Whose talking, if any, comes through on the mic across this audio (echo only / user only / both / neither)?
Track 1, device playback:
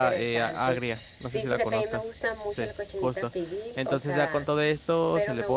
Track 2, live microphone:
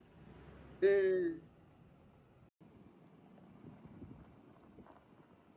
user only